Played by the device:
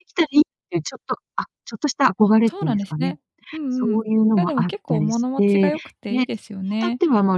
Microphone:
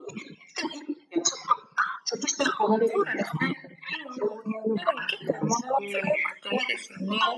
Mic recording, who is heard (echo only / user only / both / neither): echo only